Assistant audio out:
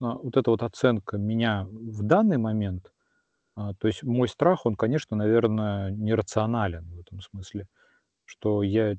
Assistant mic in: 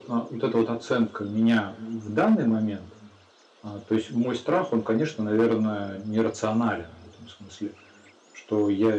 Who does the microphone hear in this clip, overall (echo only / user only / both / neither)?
echo only